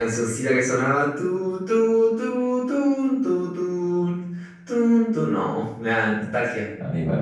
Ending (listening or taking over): taking over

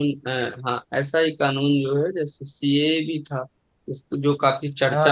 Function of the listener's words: listening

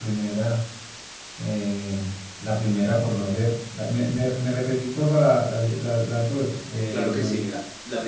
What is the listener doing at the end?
taking over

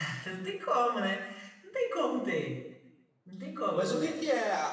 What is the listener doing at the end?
taking over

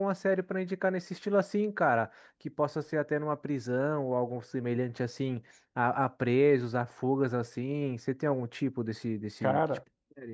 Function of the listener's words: taking over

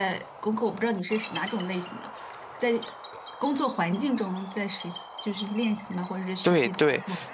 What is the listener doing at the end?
taking over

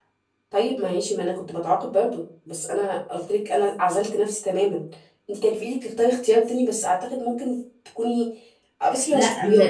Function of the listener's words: taking over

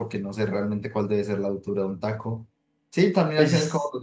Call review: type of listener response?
listening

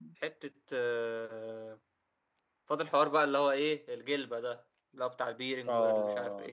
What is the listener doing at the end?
taking over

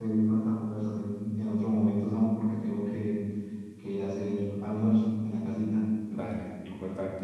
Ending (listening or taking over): taking over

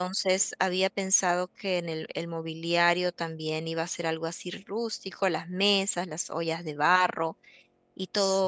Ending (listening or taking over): listening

